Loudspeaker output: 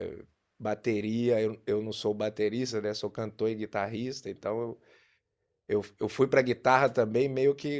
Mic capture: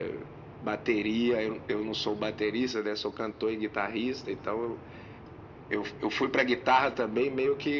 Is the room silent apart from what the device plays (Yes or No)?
Yes